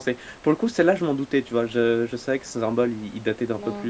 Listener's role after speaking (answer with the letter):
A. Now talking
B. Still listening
B